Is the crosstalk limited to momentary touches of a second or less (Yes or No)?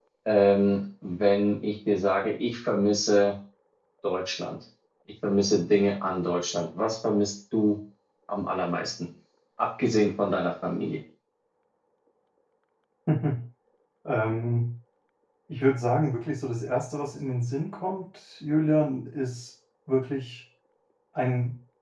Yes